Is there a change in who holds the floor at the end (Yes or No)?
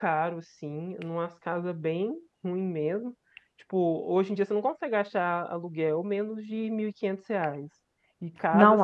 No